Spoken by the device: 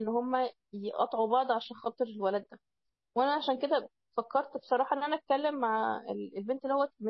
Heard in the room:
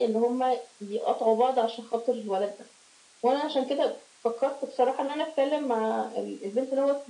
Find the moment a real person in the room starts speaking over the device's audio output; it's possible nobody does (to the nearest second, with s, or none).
none